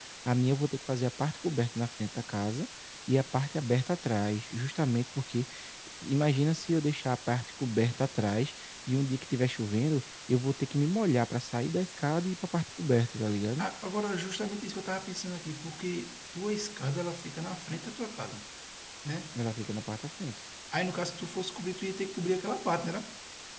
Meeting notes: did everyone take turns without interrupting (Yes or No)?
Yes